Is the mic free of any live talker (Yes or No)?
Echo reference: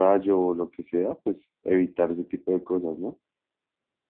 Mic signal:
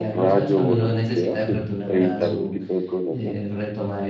No